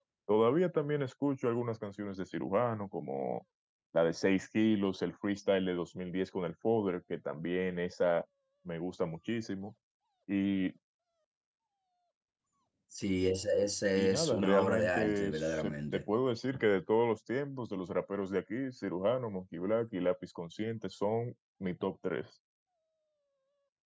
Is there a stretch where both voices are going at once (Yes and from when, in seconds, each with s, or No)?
Yes, from 14.0 s